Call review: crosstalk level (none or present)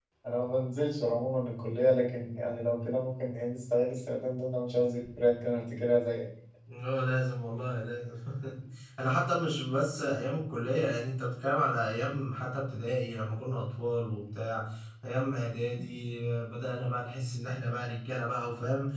none